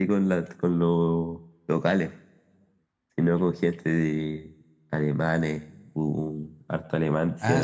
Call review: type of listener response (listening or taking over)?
taking over